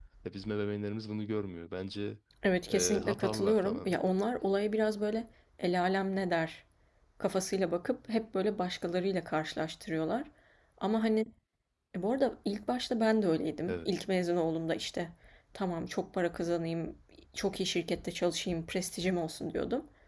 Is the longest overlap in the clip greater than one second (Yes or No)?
Yes